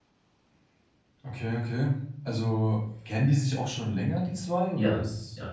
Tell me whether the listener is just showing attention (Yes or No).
No